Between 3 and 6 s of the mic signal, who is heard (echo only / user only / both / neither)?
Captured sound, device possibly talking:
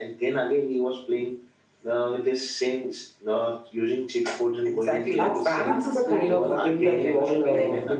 both